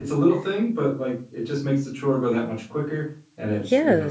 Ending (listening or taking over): taking over